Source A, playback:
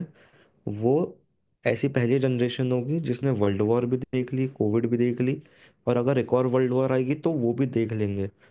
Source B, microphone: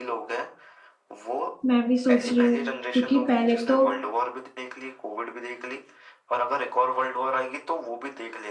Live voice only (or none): मैं भी सोच रही हूँ क्योंकि पहले तो